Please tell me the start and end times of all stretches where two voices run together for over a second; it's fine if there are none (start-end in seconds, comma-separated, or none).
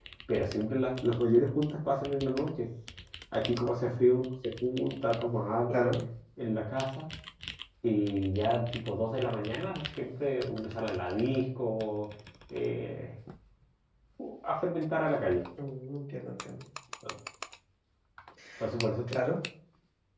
none